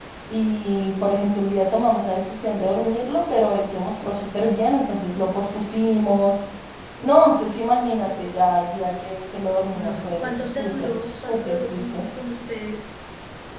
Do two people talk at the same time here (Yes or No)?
Yes